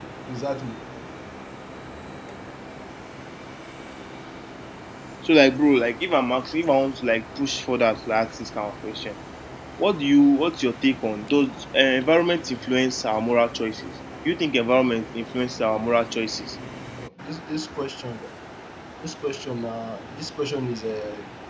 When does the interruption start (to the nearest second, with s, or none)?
none